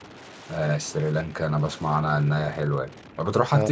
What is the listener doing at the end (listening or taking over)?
taking over